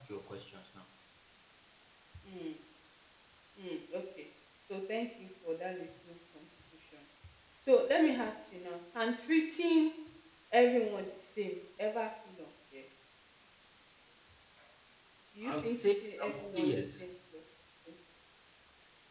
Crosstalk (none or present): present